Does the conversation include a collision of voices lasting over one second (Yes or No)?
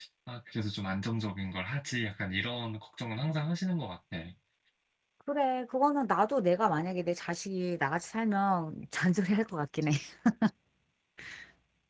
No